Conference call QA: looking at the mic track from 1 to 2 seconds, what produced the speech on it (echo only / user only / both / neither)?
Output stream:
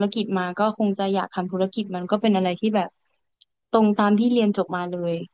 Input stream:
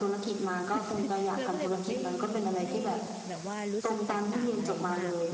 both